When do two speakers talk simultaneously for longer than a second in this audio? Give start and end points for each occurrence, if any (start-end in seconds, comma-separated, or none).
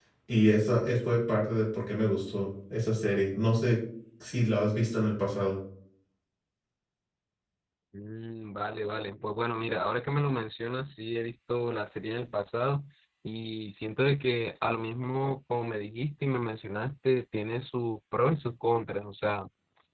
none